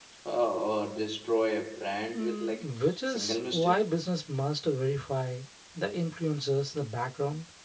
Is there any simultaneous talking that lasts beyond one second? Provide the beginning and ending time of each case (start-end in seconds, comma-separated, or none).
2.1-3.8